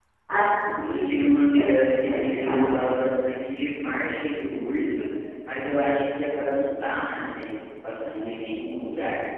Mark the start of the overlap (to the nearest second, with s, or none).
1 s